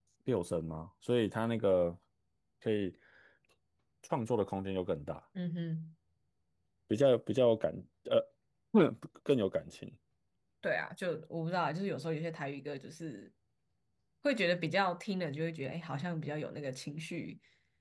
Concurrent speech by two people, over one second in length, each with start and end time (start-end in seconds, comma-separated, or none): none